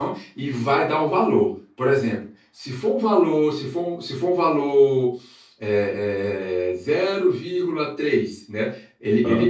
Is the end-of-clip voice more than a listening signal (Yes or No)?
No